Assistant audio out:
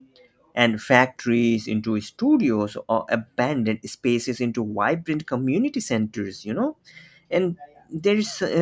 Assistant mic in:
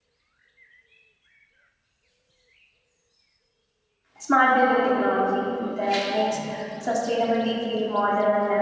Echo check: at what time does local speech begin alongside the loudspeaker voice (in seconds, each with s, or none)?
4.2 s